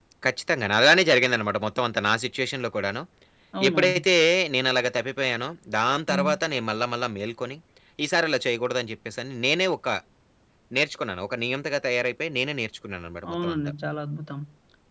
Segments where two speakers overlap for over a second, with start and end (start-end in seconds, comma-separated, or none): none